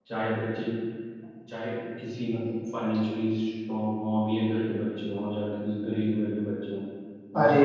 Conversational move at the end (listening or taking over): listening